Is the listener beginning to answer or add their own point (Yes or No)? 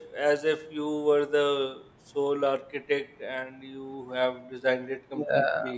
Yes